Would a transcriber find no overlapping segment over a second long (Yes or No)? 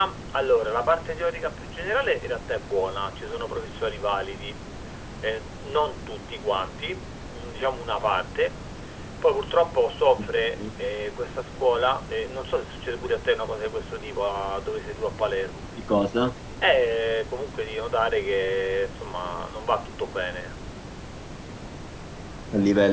Yes